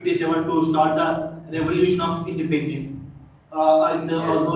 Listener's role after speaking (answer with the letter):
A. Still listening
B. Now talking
A